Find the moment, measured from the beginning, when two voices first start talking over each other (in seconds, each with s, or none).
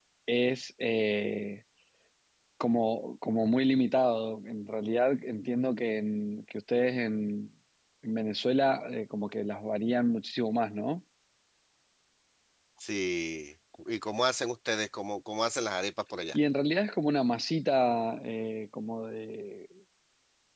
none